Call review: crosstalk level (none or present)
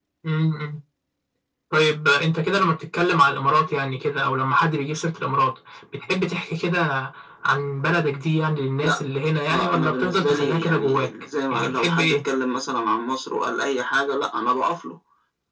present